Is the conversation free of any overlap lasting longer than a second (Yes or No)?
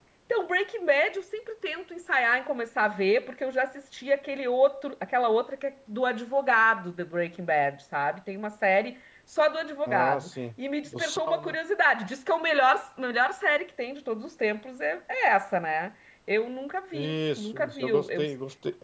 No